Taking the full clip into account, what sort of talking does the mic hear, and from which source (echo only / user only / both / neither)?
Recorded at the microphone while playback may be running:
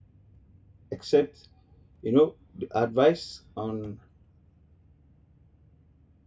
user only